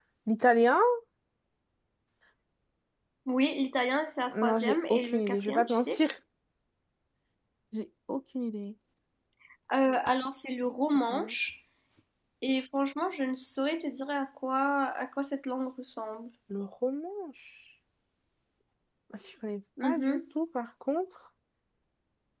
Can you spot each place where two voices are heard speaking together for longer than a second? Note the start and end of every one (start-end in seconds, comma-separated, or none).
4.3-6.0